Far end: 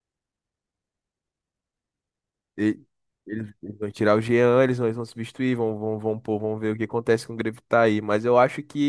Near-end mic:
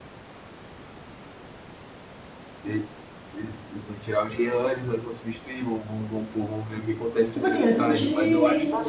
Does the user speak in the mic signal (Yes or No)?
Yes